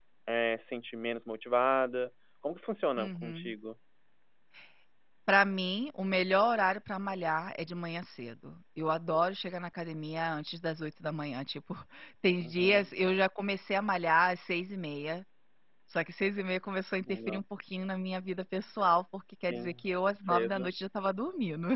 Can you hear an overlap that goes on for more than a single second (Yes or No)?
No